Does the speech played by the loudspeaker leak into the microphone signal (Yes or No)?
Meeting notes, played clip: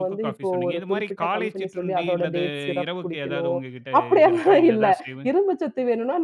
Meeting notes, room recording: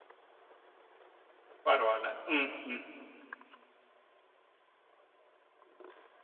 No